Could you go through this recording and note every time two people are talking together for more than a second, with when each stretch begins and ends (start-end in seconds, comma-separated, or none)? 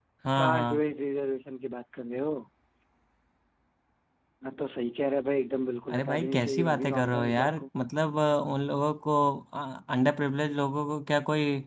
5.9-7.6